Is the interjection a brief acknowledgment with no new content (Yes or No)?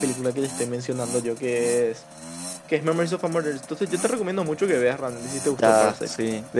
No